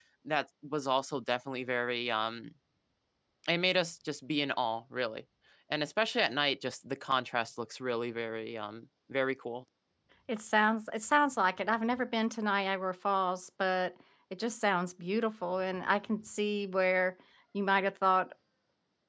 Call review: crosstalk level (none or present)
none